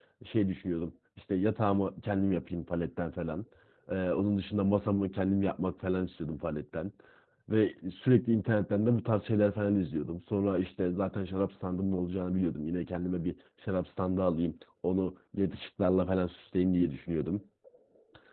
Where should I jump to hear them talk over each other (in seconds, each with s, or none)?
none